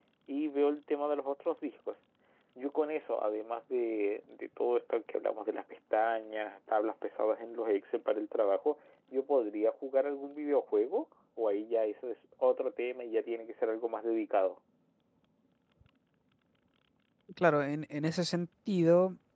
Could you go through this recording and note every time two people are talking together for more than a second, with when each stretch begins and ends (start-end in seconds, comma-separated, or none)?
none